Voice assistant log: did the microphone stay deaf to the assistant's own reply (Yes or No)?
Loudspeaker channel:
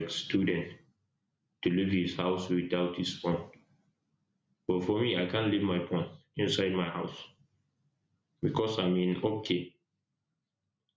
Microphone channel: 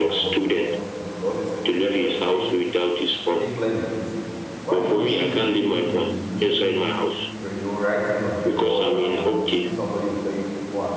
No